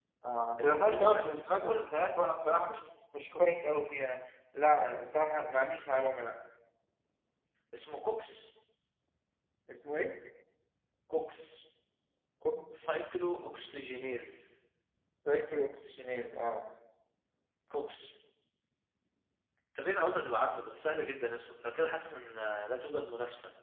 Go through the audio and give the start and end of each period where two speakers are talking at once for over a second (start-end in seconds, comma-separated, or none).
0.6-1.8